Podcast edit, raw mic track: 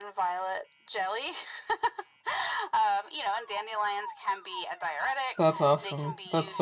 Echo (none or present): present